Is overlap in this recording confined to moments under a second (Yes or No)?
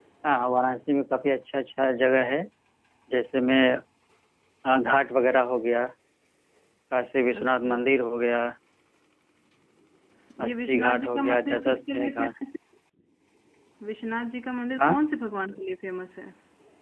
No